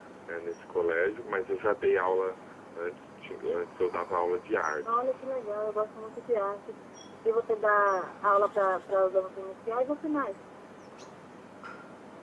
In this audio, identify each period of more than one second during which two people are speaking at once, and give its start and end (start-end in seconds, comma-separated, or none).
none